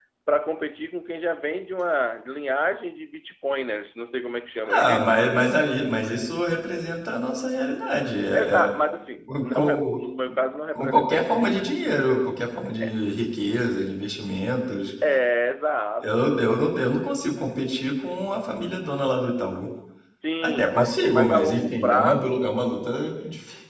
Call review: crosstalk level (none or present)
present